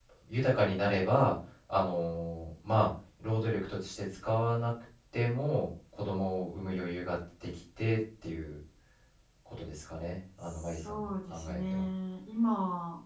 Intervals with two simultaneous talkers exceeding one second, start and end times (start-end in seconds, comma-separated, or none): 10.4-11.8